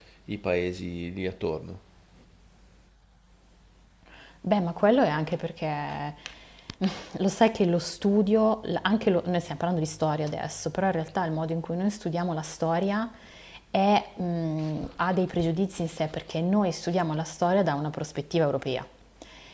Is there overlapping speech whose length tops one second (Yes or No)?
No